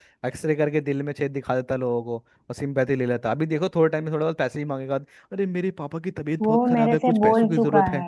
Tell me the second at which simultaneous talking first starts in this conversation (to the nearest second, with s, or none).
6 s